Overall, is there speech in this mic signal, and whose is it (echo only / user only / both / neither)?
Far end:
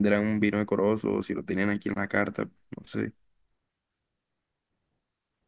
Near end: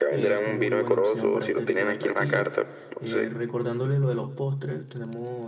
both